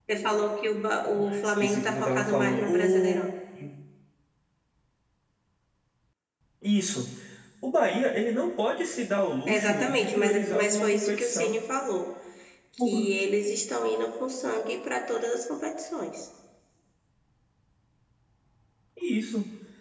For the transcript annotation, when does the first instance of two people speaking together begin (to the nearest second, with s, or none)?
1 s